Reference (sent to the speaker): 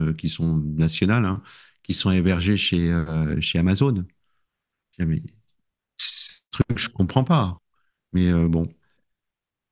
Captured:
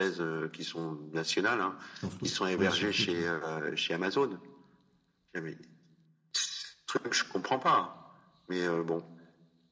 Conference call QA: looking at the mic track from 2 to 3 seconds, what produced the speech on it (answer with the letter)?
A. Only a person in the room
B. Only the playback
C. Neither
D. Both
D